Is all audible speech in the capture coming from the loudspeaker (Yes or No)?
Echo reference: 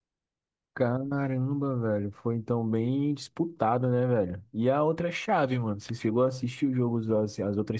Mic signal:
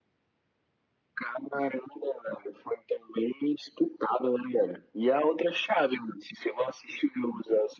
Yes